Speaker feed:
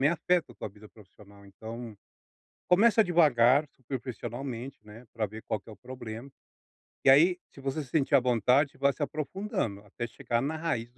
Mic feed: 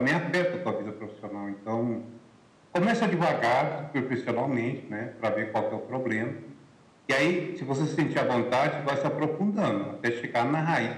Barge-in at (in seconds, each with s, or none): none